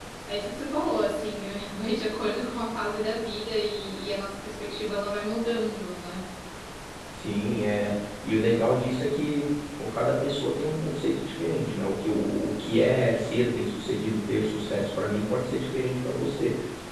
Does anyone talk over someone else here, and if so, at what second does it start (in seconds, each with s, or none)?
none